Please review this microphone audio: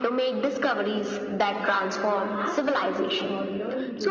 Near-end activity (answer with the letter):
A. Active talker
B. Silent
A